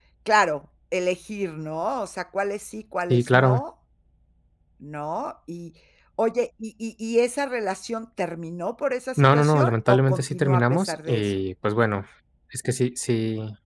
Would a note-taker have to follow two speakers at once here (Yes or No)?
Yes